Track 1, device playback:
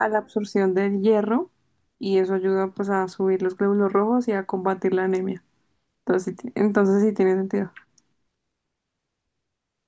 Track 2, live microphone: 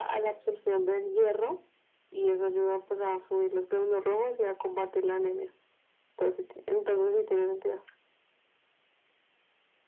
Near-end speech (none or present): none